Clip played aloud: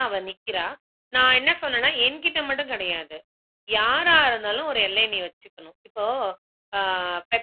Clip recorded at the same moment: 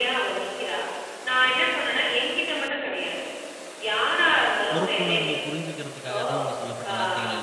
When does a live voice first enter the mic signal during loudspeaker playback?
5 s

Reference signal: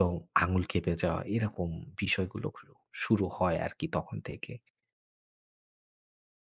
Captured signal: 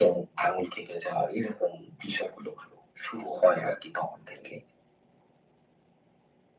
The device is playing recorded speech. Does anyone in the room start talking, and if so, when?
none

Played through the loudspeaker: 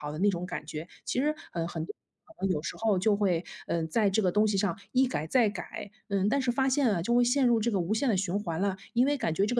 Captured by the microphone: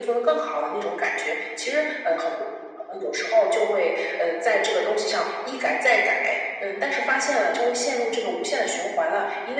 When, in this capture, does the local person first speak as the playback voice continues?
none

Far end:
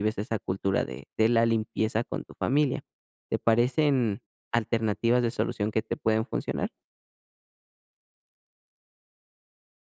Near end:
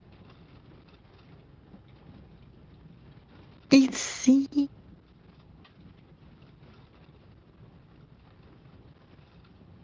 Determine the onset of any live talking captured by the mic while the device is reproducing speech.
4 s

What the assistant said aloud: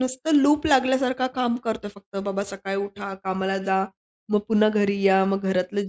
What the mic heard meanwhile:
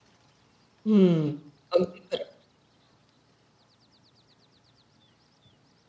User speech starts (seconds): 1 s

